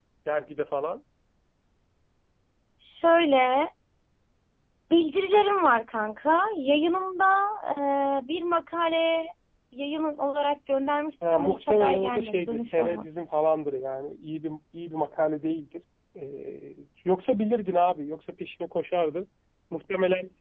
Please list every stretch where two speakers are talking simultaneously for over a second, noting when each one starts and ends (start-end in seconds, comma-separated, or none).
11.3-13.1